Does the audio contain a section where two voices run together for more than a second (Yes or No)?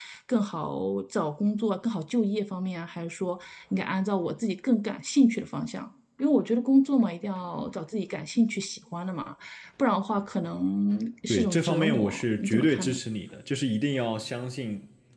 Yes